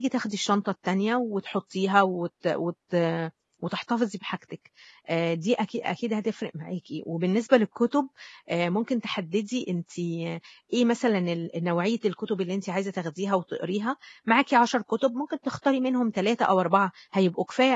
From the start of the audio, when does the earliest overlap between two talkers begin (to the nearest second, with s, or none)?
none